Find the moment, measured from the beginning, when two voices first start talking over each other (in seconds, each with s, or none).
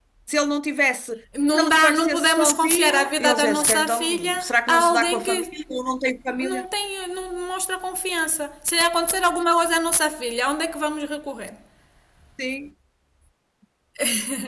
1.5 s